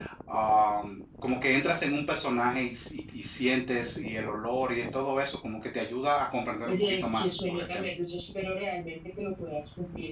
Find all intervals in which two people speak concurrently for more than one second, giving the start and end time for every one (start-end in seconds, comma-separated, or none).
6.7-7.9